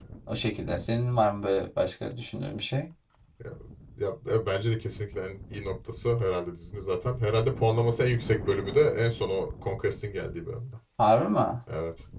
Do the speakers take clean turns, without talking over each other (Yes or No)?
Yes